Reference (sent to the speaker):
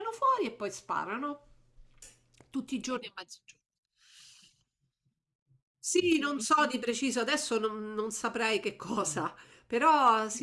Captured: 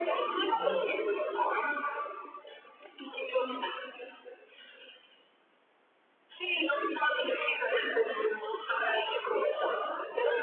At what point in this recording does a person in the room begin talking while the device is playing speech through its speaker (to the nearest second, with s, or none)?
0 s